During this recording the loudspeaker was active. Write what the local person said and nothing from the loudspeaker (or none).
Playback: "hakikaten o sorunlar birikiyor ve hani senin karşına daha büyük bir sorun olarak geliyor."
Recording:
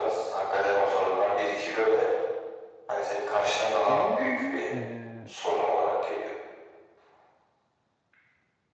Öyle olunca eee,